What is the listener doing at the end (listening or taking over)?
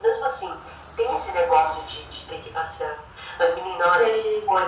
listening